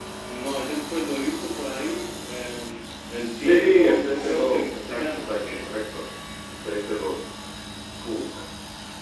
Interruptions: present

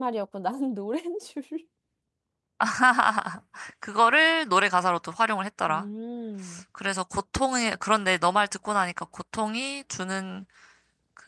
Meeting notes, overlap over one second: none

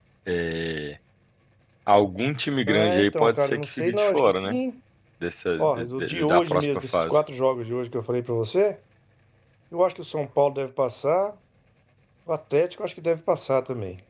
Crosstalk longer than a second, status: present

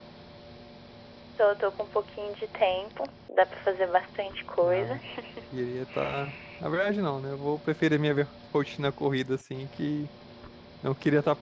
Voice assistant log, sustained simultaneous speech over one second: none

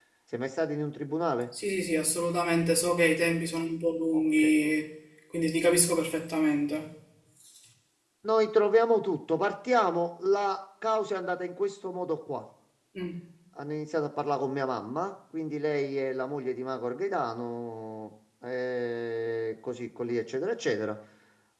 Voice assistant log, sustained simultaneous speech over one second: none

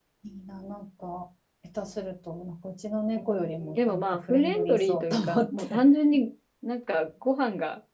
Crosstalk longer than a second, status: present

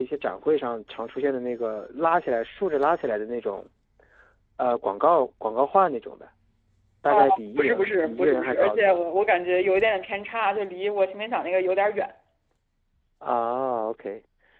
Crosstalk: present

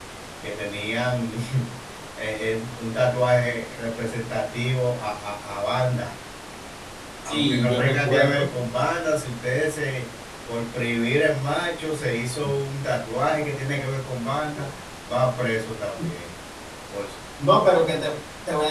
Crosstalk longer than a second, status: present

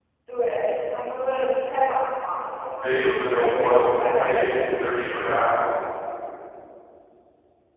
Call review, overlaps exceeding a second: present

